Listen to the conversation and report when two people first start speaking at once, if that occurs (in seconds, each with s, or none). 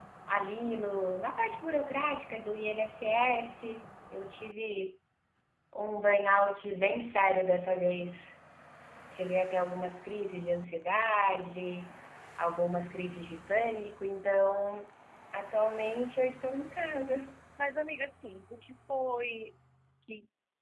none